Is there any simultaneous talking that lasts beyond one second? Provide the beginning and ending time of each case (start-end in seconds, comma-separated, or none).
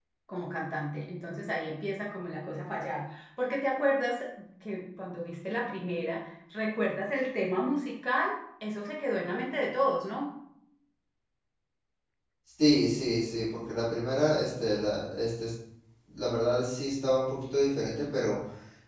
none